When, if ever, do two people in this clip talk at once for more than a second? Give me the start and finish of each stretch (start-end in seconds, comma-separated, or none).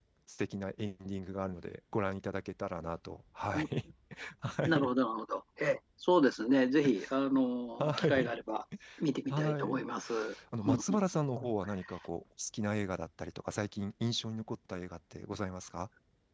none